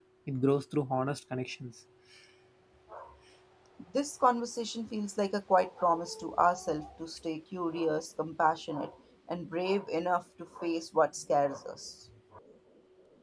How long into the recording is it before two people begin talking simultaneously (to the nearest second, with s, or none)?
none